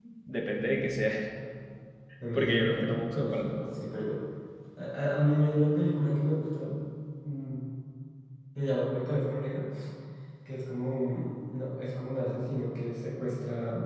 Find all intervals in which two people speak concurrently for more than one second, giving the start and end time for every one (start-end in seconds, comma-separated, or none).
2.3-3.6